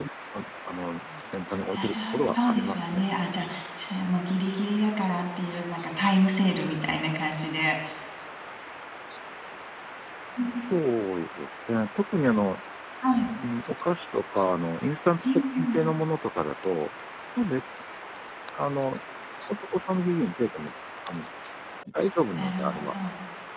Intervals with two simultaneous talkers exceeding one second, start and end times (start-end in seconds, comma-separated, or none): 1.8-3.0